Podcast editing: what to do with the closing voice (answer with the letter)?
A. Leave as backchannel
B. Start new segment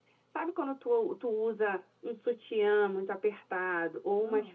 A